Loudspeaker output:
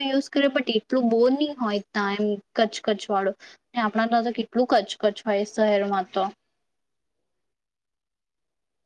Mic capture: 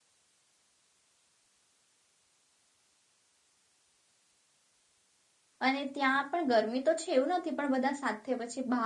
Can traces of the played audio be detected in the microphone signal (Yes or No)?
No